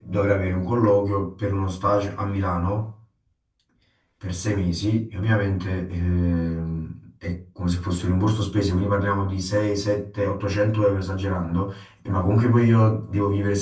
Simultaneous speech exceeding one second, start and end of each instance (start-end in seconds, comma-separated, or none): none